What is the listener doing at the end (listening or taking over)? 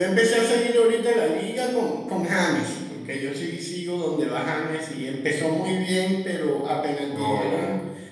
listening